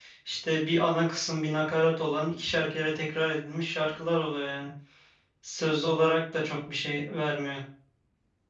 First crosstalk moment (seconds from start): none

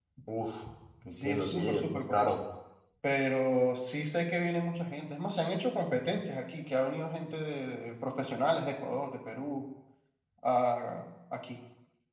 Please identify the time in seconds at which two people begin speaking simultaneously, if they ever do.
1.1 s

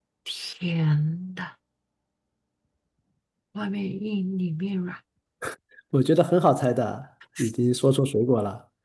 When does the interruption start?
none

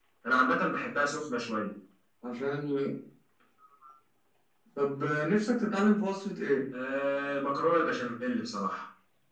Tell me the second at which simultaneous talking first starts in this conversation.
none

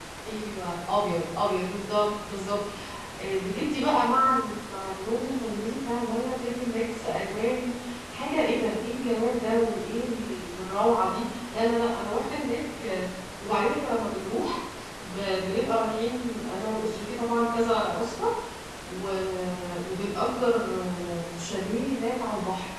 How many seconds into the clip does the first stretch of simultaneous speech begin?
none

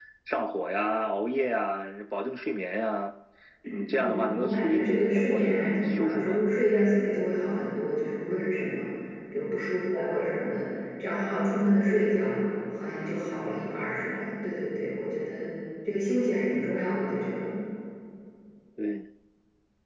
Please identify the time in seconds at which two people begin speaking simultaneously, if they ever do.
4.0 s

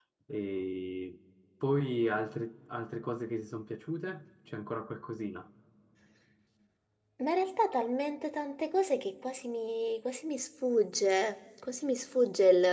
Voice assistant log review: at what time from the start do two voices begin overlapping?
none

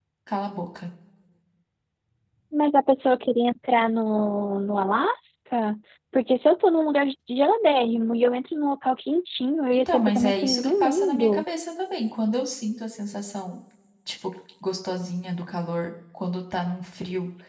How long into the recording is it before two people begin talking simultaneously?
9.7 s

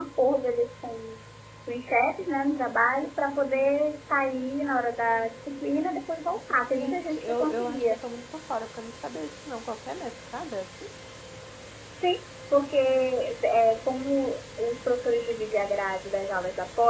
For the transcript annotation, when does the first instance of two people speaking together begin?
6.8 s

